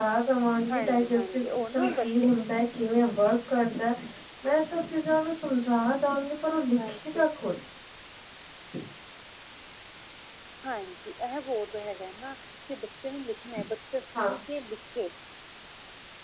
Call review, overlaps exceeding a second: present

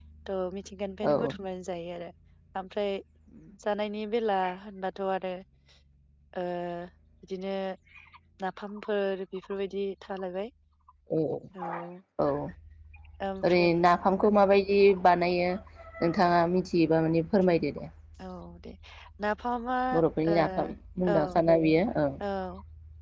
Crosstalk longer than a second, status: none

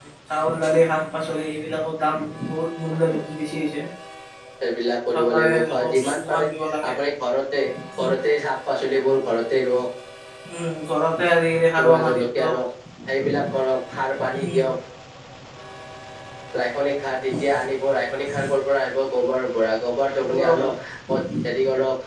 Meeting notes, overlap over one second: present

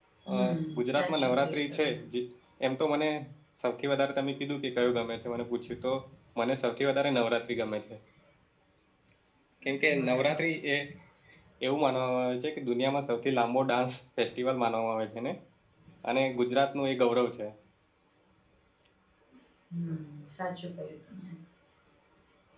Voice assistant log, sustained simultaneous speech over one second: present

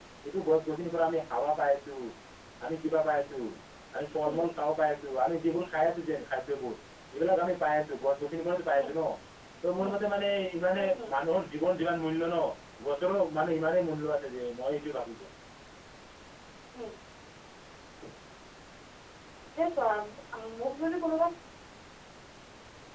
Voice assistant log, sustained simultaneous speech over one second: none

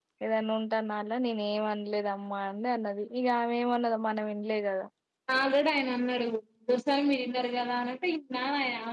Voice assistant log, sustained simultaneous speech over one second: none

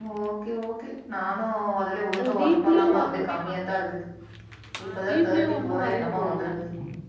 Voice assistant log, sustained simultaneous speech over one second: present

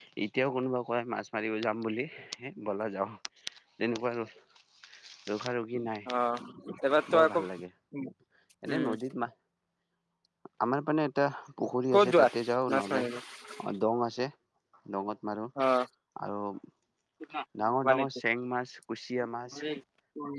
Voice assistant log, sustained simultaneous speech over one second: none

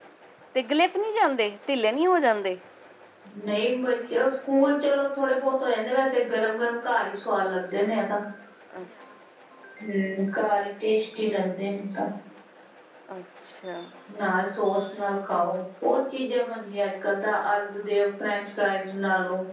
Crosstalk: none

